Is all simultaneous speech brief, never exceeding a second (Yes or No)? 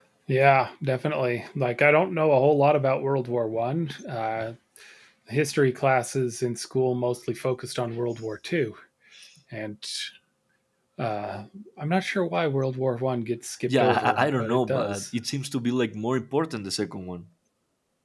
No